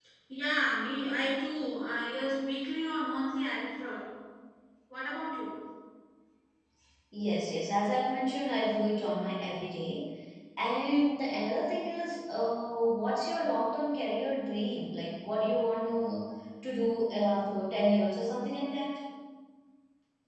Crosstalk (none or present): none